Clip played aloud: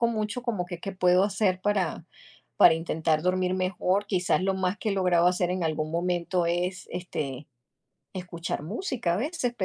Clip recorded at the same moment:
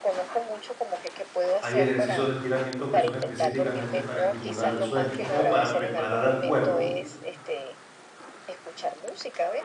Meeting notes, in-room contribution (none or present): present